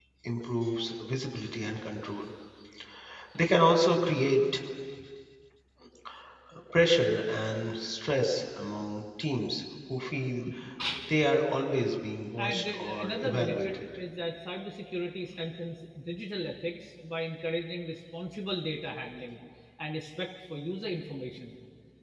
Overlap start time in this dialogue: 12.4 s

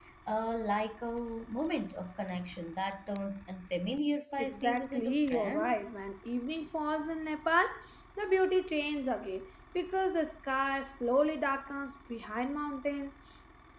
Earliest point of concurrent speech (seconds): 4.4 s

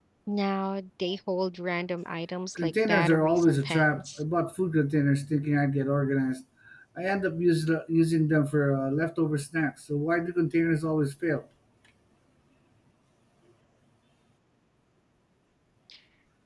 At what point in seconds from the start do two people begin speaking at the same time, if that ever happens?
2.5 s

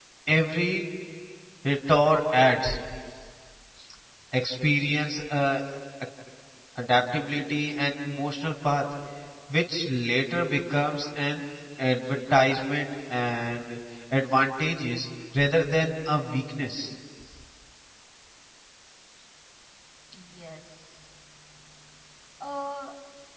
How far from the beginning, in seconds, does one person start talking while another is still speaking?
none

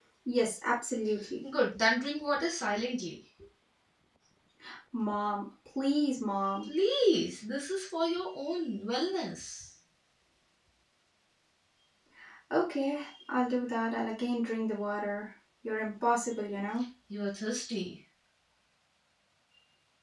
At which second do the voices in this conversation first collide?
none

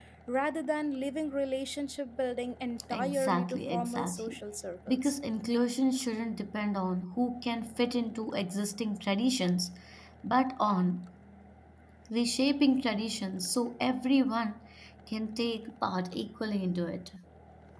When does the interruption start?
2.9 s

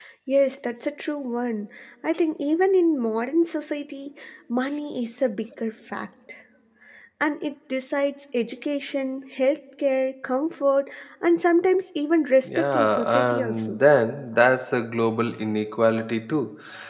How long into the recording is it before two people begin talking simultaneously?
12.4 s

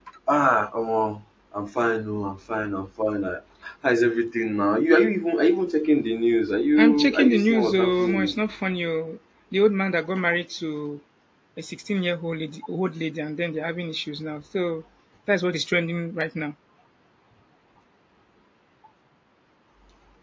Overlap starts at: 6.8 s

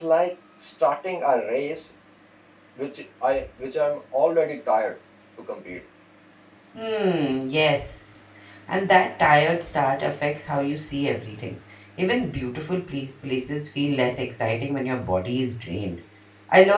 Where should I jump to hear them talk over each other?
none

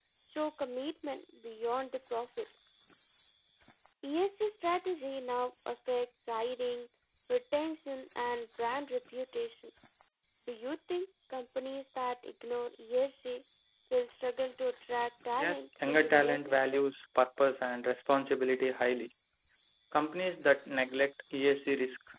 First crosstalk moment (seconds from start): 15.4 s

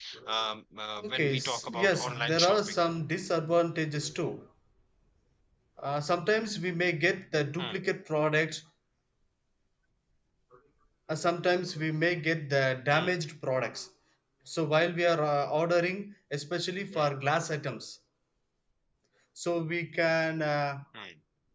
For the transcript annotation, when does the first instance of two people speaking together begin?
1.0 s

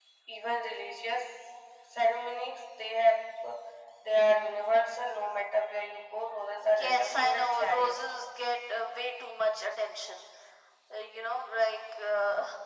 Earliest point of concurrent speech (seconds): 6.6 s

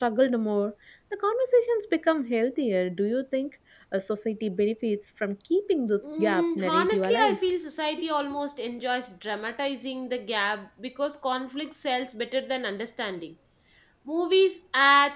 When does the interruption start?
6.0 s

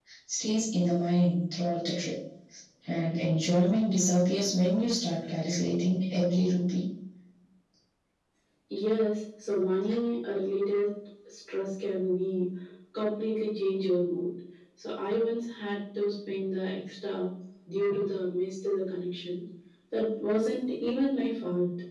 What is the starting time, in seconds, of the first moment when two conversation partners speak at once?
none

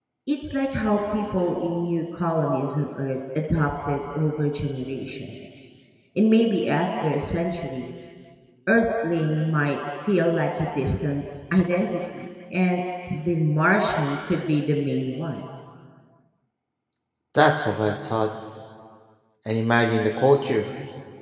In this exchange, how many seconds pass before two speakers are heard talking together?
none

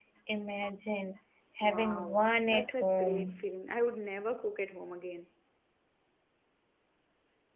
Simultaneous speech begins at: 1.6 s

